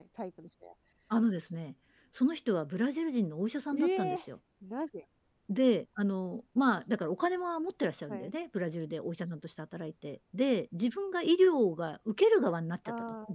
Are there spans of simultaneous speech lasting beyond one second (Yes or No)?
No